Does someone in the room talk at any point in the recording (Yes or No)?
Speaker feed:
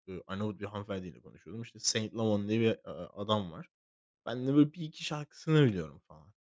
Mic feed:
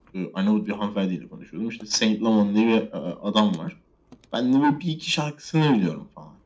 No